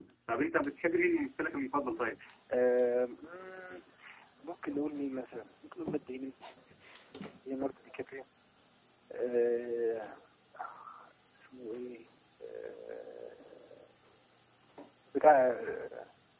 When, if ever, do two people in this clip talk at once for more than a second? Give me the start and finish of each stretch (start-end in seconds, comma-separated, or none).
none